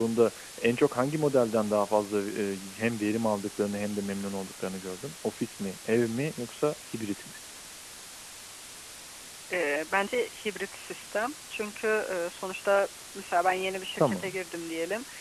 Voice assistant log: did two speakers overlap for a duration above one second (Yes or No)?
No